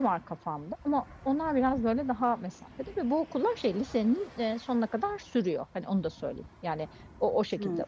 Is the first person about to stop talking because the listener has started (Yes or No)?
No